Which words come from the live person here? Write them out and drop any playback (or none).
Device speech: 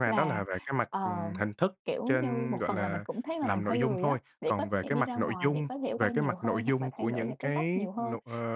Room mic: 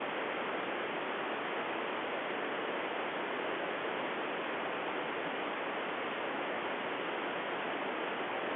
none